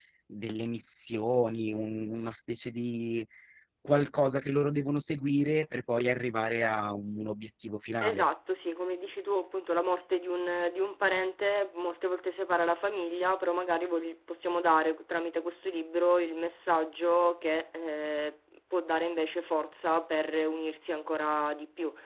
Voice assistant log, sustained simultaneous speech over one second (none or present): none